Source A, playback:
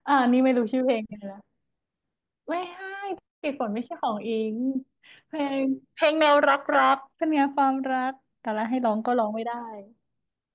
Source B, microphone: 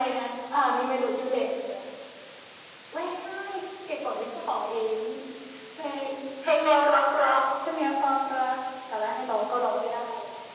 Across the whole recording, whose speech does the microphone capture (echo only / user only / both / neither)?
echo only